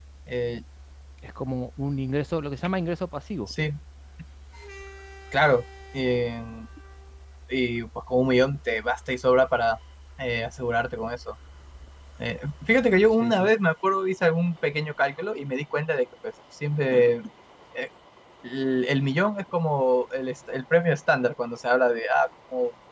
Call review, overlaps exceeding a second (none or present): none